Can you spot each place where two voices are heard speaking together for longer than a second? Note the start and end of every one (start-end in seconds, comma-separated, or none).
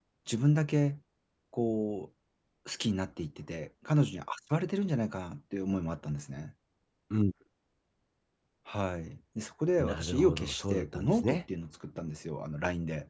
9.8-11.4